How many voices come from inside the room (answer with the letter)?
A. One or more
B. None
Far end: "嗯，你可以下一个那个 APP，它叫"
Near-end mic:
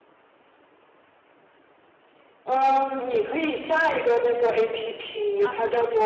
A